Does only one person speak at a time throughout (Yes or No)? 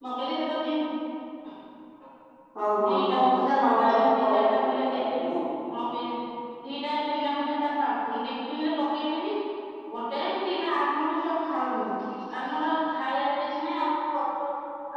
No